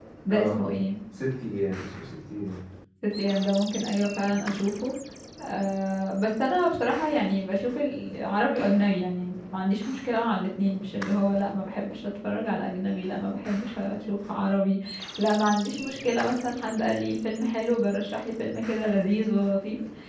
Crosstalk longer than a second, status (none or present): none